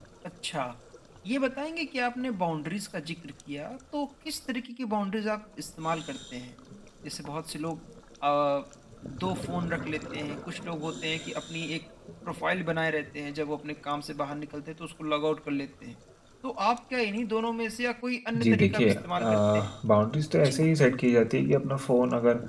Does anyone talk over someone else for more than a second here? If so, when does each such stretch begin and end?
18.4-19.7

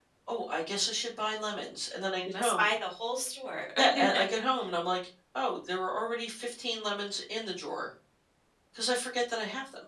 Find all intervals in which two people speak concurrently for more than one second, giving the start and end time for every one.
none

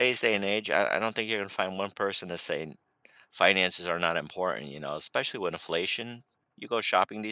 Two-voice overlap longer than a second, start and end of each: none

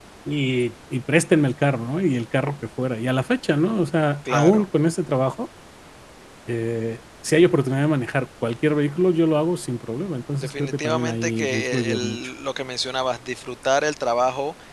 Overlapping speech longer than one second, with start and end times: 10.4-12.2

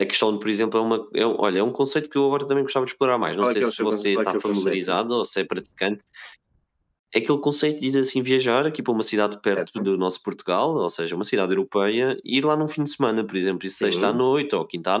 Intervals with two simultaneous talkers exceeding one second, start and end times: 3.4-4.9

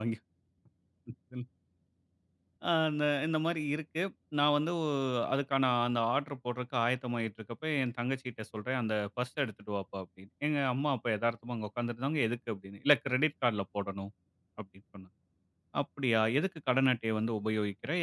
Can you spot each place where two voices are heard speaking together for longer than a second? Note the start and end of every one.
none

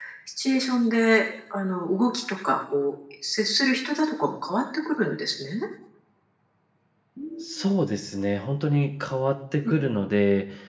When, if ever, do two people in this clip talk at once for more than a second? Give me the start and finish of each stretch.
none

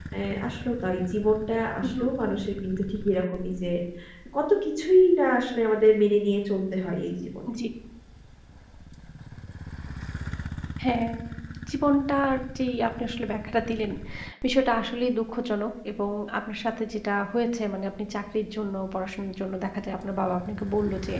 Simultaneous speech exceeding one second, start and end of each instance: none

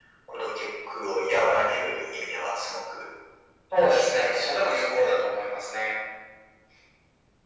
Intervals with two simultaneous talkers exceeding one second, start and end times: 3.9-5.2

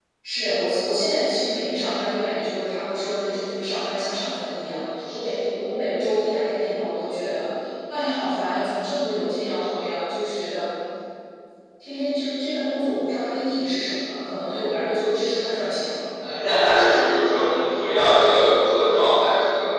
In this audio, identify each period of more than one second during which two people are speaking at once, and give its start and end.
none

